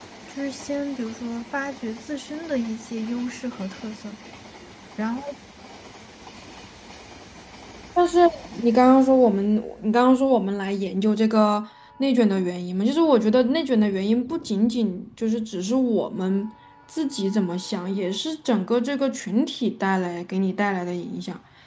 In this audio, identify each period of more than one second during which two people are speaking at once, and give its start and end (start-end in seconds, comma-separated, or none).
none